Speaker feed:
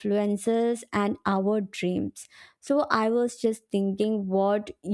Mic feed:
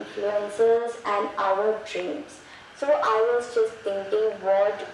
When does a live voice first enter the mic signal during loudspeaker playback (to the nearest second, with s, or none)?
none